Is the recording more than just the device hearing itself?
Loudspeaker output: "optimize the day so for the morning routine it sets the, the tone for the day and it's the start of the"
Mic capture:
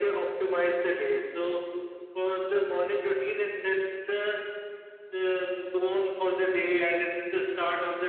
No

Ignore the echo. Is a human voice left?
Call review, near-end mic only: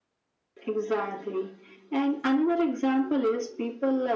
No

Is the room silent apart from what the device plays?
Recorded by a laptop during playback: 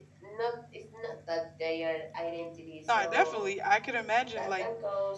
No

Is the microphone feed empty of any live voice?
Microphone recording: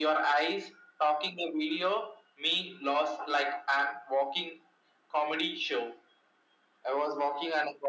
Yes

